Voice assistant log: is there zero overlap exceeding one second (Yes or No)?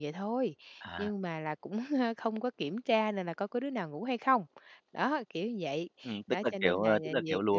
No